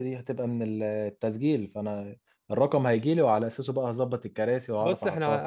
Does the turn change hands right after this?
Yes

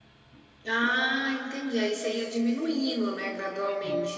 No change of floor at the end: No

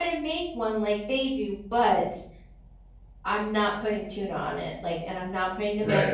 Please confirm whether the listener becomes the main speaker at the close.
Yes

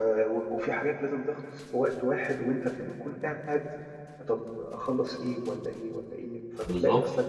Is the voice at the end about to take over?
No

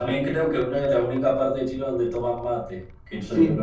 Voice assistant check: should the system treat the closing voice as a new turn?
Yes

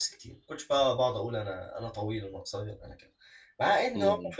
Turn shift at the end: No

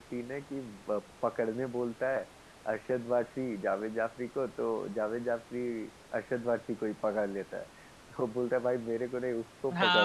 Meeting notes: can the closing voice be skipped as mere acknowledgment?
No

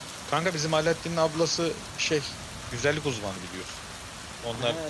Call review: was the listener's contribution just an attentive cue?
Yes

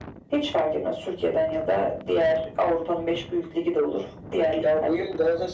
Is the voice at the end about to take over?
Yes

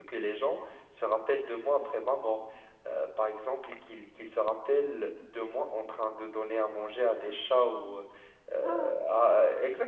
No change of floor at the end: Yes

